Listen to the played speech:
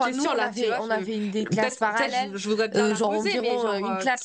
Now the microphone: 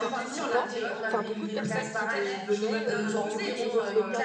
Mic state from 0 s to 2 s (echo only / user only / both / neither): both